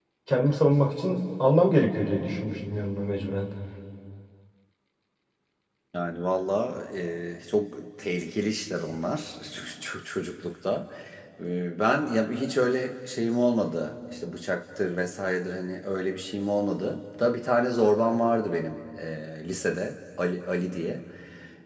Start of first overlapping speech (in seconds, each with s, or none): none